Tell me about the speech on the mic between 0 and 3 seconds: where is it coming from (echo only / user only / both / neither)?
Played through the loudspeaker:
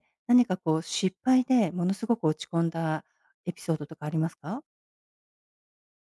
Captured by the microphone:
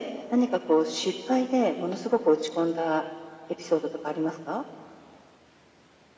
echo only